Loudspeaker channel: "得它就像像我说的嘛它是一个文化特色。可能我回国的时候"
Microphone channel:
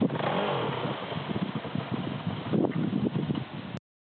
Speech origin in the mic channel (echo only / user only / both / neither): neither